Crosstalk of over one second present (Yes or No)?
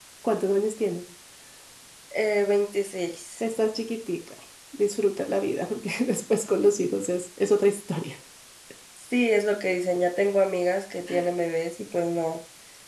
No